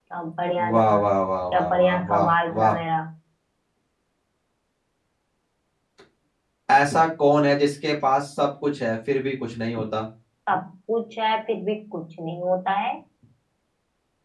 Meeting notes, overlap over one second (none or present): present